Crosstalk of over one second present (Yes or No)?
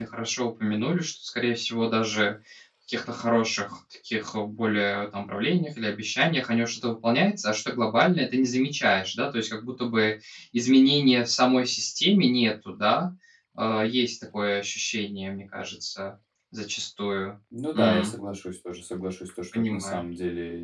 No